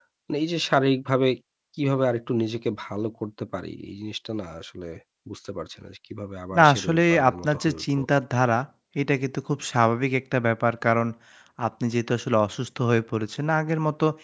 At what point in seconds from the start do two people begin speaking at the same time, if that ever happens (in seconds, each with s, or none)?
6.5 s